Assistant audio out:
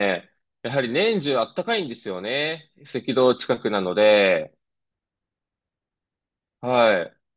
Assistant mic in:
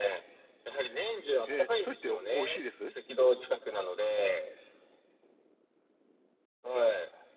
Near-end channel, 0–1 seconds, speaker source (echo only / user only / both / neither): echo only